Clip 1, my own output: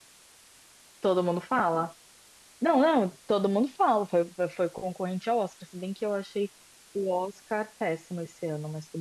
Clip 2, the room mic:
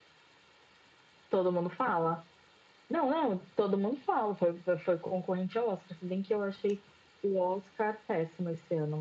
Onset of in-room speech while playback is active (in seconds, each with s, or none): none